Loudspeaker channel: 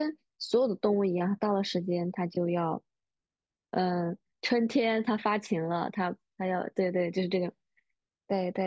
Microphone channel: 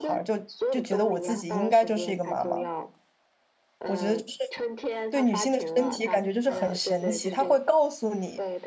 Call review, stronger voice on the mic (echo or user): user